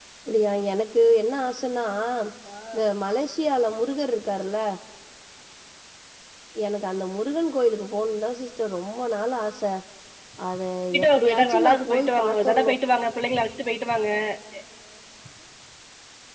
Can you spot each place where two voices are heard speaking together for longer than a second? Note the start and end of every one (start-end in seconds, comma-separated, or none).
11.0-12.8